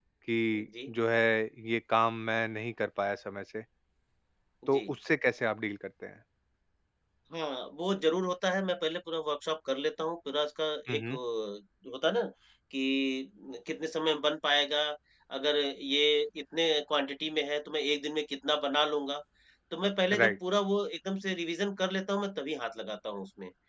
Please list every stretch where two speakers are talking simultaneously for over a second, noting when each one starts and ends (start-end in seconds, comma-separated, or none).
none